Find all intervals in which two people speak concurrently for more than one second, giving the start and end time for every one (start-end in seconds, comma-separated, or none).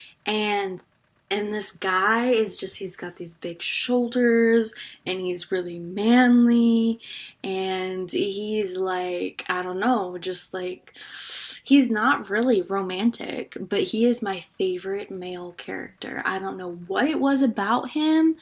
none